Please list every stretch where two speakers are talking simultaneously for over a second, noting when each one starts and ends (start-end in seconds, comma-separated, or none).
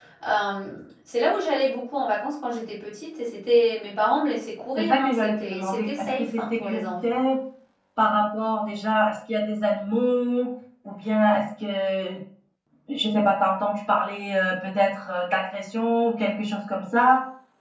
4.8-7.2